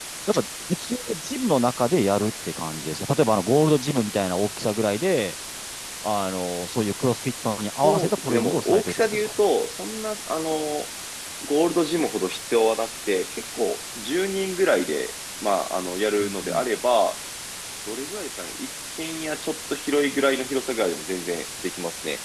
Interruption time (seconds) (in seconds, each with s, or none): 7.8 s